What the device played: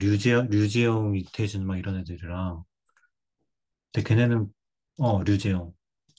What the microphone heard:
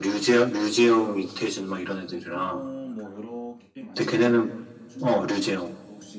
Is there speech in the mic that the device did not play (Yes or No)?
Yes